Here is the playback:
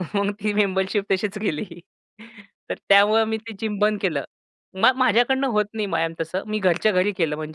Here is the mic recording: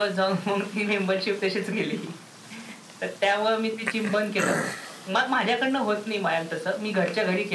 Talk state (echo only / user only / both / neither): echo only